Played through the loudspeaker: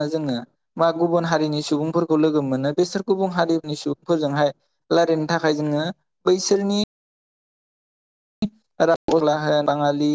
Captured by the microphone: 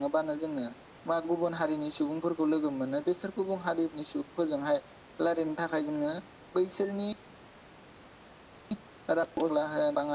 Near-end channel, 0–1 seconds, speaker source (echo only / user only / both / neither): echo only